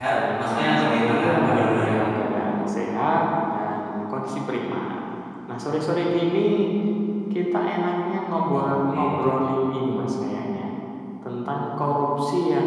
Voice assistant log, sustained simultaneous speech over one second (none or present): present